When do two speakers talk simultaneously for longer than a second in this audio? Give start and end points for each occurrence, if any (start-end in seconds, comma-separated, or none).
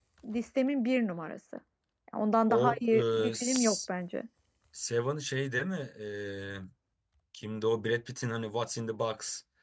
2.5-3.8